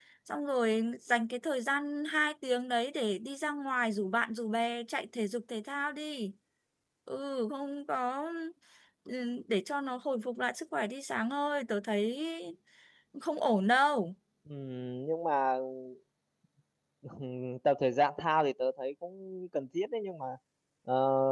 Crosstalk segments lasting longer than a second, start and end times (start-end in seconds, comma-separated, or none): none